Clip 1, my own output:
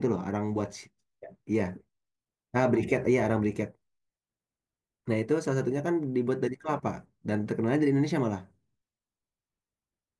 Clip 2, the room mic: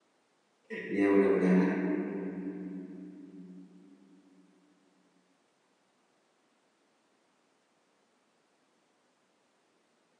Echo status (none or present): none